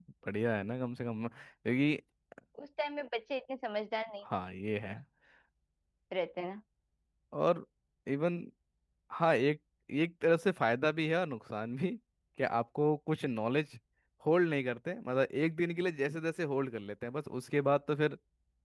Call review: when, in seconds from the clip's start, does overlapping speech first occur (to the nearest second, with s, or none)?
none